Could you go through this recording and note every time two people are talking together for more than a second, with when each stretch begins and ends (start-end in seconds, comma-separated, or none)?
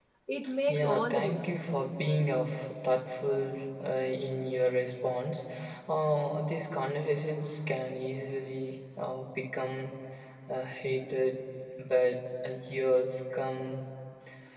0.7-1.9